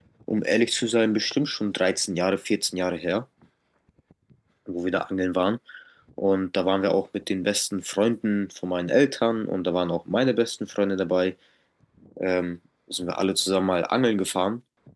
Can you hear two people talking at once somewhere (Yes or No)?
No